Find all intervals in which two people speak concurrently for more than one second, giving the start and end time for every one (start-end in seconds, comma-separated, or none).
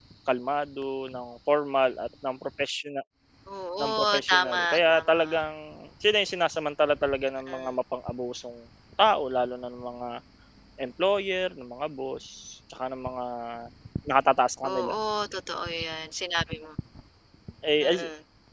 3.8-5.2